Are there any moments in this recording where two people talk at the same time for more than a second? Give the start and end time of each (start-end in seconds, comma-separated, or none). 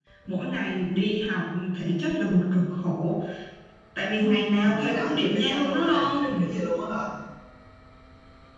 4.6-6.4